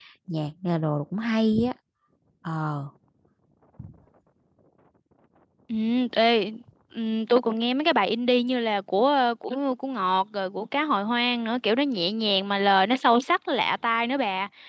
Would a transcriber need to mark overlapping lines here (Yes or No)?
No